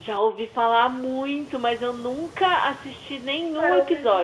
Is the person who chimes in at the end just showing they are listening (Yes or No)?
No